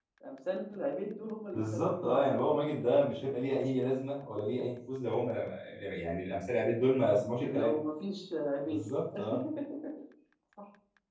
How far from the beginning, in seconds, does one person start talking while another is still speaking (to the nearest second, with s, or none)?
2 s